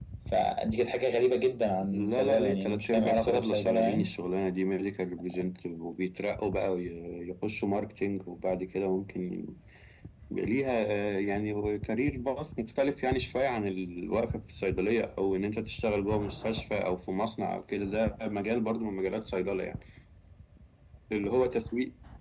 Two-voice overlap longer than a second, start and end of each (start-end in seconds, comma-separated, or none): 1.9-4.0